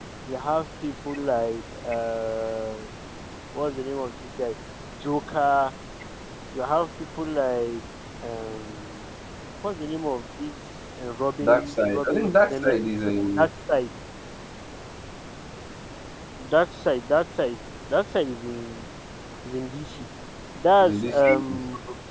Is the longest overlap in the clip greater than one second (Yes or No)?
Yes